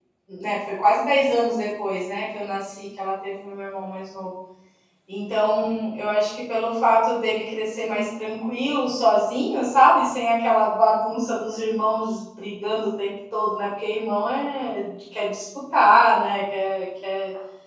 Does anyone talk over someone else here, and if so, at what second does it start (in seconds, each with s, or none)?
none